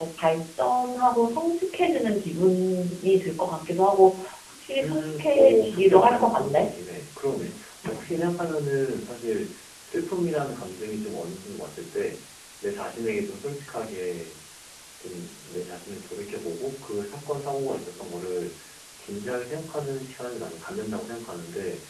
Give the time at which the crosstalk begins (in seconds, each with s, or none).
4.8 s